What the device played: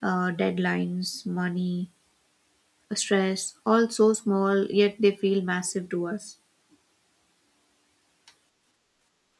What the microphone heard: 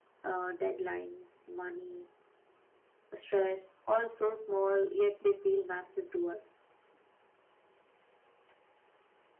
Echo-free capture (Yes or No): No